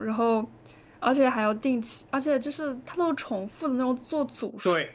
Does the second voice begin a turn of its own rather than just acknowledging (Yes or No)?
Yes